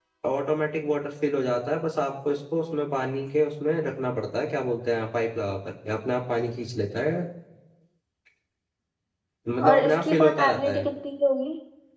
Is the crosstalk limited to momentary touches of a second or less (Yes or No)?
No